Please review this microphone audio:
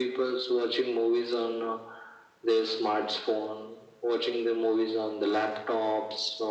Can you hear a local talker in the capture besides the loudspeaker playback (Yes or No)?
No